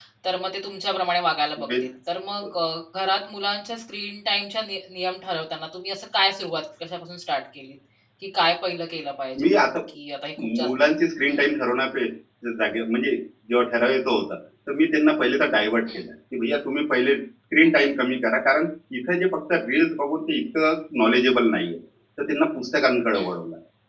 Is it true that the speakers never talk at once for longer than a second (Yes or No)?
Yes